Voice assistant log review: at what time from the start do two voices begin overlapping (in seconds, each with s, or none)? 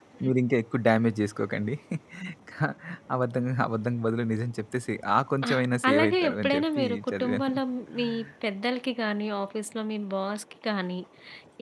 5.5 s